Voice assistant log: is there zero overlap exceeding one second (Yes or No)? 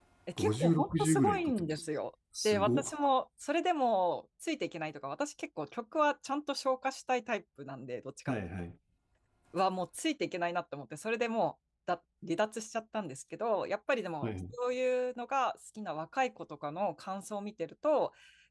No